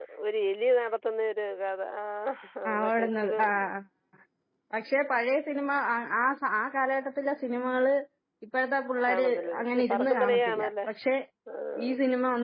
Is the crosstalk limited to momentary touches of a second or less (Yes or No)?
No